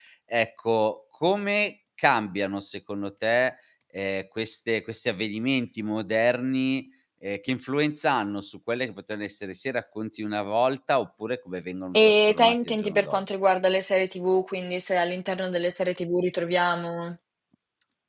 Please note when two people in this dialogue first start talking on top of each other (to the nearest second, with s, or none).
12 s